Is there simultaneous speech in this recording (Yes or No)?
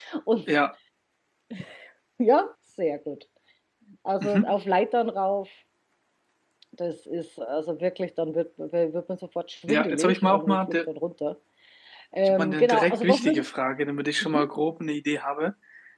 Yes